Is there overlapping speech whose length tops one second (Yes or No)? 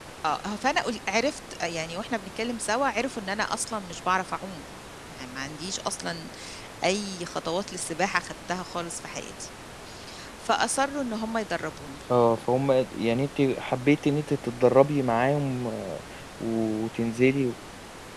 No